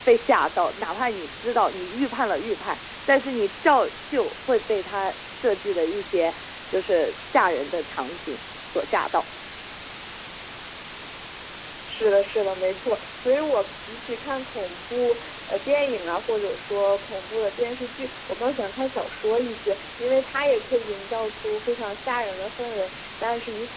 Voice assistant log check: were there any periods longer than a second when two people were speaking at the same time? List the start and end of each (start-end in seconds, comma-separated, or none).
none